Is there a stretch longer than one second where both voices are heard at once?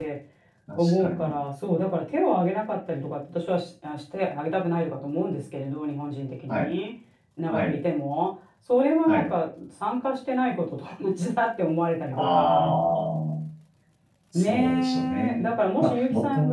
Yes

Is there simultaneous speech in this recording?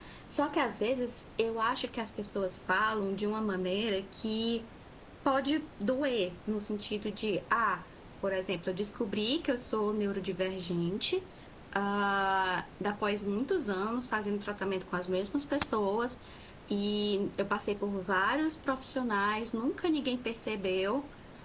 No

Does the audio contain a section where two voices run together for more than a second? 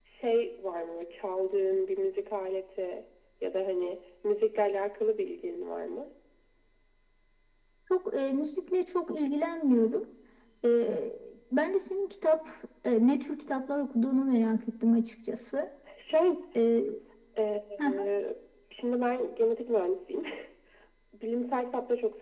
No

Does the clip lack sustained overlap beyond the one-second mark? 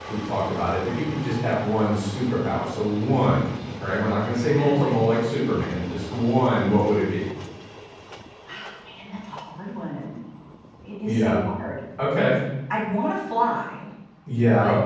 Yes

